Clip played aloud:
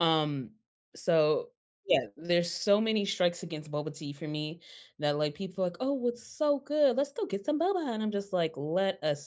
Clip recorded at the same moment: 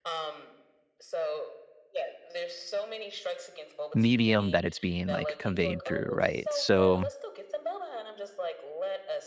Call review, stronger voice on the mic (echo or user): user